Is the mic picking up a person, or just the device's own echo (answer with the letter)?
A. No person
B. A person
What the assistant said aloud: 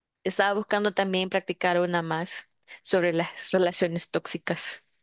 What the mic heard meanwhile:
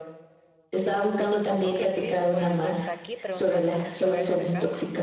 B